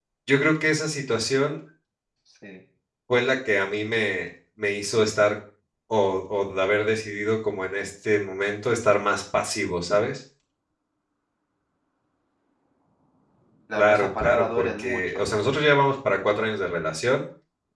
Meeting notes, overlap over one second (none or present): present